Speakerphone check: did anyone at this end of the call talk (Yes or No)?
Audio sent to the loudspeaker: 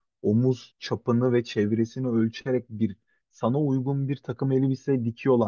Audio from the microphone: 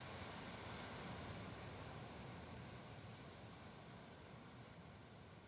No